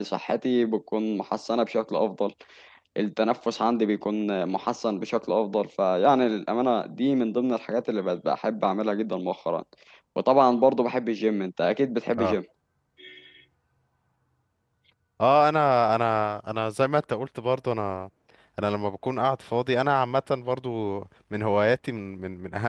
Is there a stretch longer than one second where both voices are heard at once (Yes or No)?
No